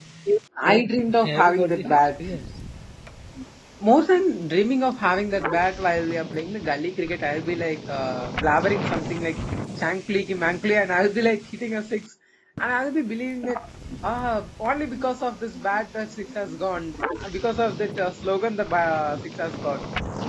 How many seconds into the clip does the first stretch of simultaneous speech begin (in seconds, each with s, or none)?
0.6 s